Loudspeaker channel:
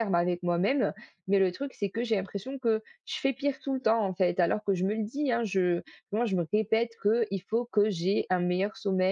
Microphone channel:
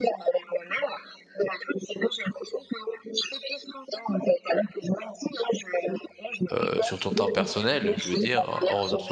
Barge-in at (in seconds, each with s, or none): 6.5 s